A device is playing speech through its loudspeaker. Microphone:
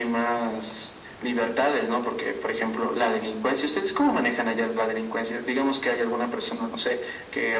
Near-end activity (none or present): none